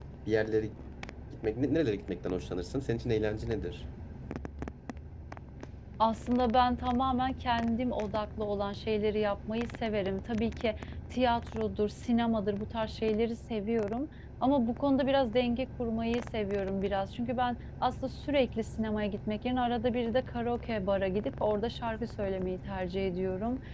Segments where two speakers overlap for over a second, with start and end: none

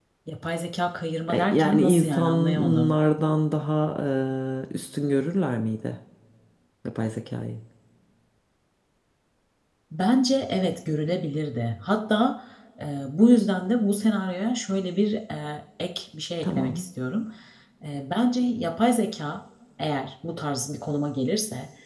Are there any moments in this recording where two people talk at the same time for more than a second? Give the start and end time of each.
1.3-2.9

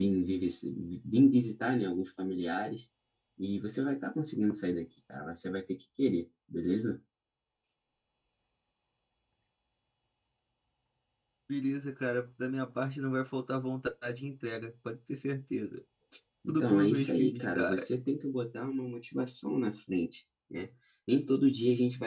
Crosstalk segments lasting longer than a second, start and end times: 16.5-17.9

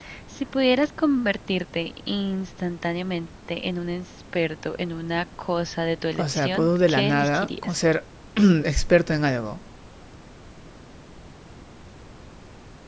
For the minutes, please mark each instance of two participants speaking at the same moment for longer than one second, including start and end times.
6.2-7.8

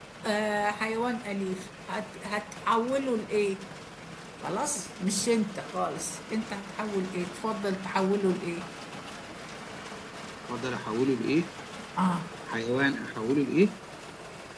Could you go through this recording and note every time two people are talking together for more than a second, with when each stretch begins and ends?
none

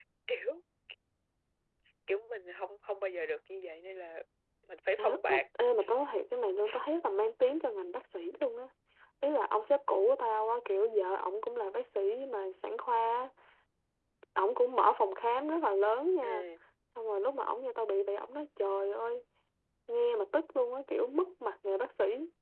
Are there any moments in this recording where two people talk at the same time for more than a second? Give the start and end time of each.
none

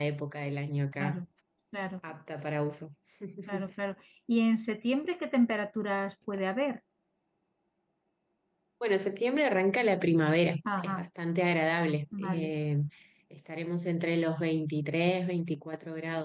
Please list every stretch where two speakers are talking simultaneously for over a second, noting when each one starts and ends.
none

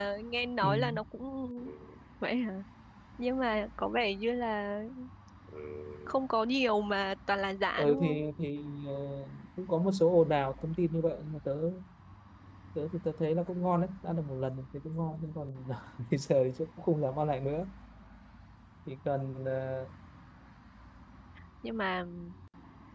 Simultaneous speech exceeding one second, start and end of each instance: none

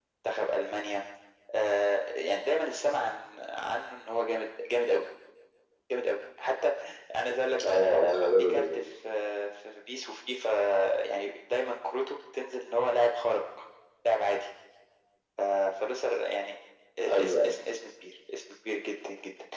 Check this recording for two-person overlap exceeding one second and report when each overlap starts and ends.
none

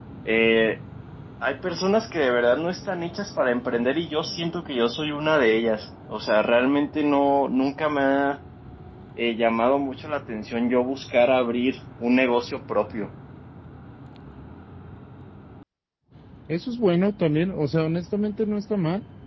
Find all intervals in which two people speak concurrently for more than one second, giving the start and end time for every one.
none

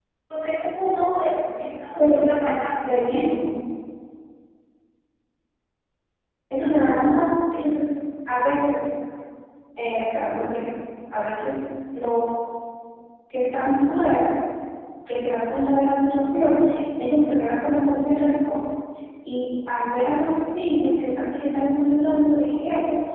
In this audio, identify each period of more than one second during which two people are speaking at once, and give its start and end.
none

